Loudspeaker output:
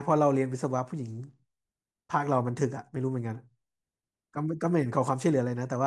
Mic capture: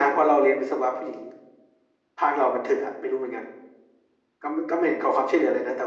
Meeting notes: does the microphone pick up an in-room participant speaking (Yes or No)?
No